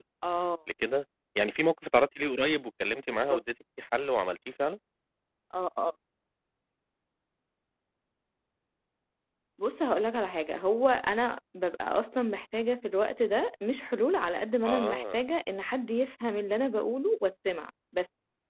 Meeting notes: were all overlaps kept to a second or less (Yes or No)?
Yes